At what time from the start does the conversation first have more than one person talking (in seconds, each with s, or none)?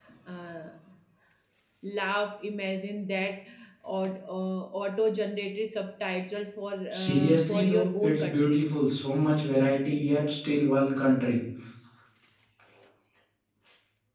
6.9 s